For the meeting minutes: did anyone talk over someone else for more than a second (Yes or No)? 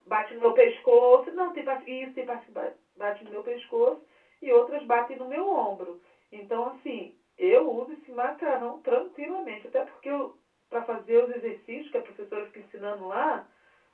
No